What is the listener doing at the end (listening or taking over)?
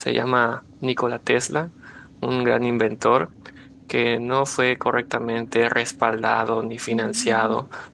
listening